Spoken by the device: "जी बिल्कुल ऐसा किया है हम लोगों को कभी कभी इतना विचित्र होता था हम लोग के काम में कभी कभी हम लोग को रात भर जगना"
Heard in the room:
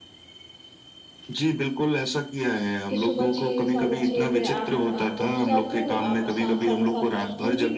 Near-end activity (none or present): present